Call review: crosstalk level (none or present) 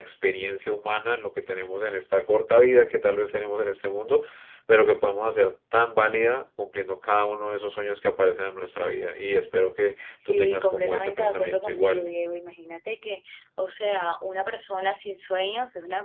present